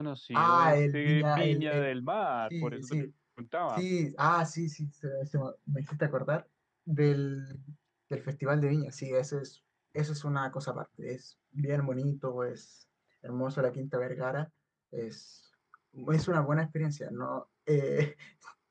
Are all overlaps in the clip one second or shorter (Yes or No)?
No